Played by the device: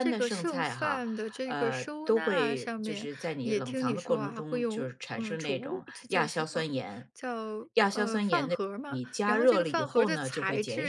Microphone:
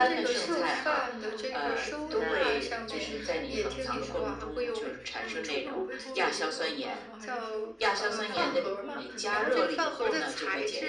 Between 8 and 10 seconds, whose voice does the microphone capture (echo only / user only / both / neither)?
both